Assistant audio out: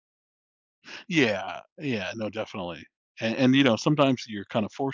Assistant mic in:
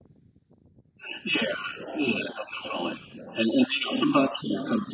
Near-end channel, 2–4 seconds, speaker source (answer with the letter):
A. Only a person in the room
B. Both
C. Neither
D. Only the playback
D